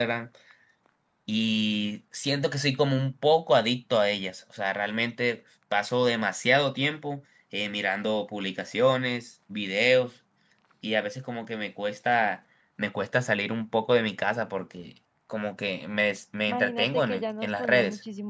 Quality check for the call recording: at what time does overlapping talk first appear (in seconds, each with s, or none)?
16.5 s